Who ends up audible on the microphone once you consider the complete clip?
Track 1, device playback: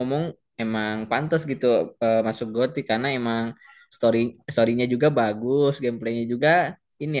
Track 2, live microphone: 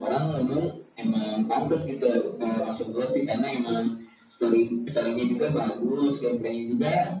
echo only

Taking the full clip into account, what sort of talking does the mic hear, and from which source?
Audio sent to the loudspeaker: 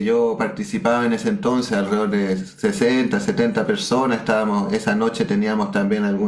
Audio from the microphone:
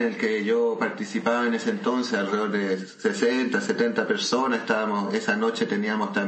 echo only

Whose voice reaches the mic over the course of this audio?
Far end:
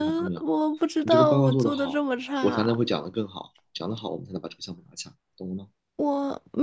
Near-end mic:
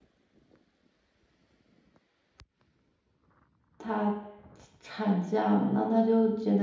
user only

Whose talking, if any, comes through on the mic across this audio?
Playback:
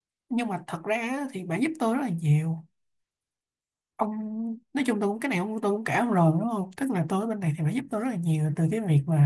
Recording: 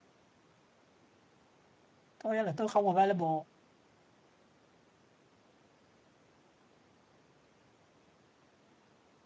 user only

